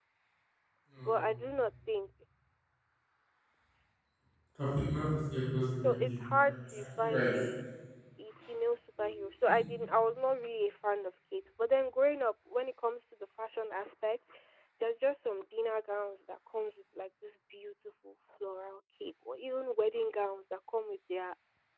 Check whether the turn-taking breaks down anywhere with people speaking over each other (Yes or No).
Yes